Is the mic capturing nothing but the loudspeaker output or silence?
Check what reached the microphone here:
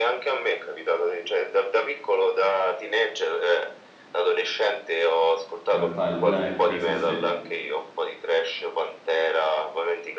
No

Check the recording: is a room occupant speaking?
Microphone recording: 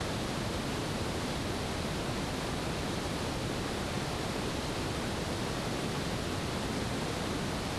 No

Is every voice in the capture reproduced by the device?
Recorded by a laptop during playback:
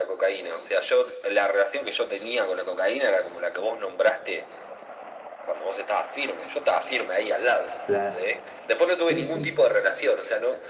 No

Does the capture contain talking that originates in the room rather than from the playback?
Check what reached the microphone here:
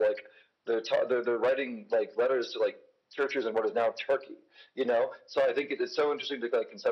No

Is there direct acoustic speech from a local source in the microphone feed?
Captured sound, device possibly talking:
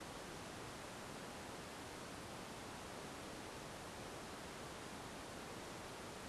No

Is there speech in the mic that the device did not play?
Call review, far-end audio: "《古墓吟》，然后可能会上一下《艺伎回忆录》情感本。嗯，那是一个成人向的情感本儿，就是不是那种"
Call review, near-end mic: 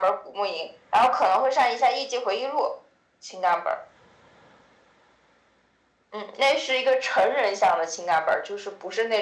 No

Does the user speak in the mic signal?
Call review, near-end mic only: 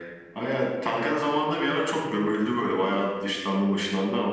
No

